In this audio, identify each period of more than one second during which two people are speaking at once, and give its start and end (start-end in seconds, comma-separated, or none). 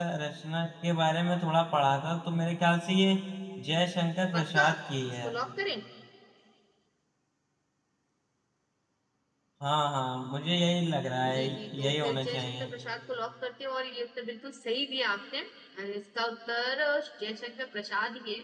11.3-12.7